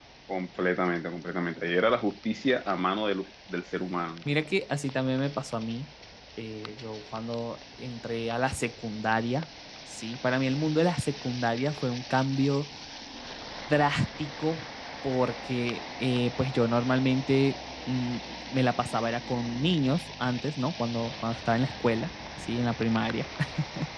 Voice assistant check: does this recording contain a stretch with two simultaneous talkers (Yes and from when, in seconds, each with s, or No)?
No